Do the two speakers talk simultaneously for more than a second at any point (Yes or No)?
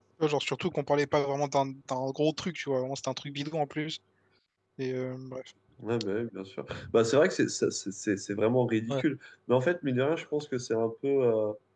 No